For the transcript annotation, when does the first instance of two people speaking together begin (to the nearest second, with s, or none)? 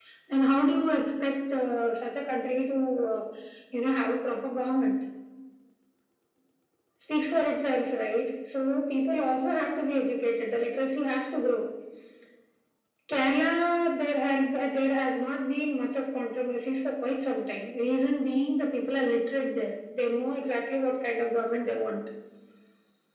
none